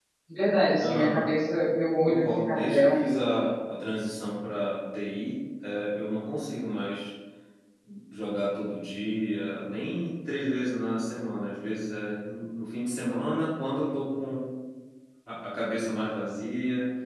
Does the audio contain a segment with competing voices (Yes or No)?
Yes